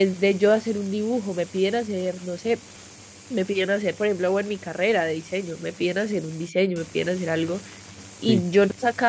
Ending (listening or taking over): listening